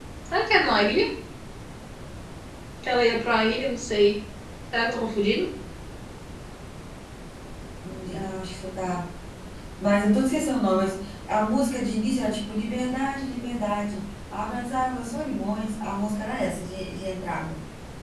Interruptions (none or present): none